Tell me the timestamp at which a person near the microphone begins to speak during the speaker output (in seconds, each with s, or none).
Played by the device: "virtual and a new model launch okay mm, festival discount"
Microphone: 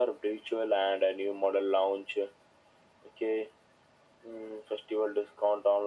none